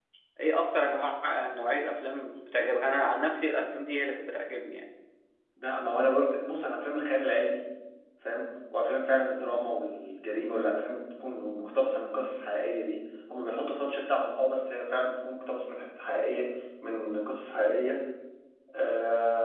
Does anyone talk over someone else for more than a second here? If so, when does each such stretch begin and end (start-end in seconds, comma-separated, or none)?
none